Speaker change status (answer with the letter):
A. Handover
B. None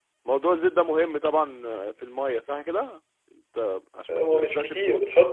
A